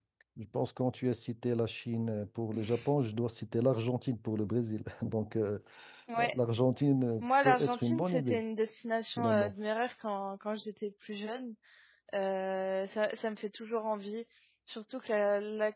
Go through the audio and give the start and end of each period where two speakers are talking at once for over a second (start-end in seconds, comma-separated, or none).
7.2-8.4